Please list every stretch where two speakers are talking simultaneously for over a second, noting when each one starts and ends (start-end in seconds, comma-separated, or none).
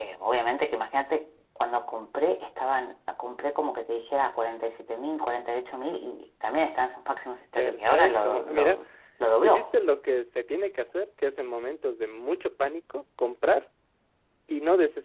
7.6-8.8